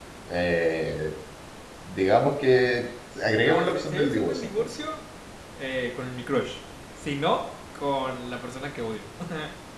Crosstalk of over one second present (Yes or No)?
Yes